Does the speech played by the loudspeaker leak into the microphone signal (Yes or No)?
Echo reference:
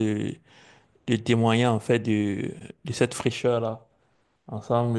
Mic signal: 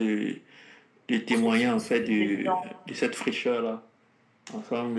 Yes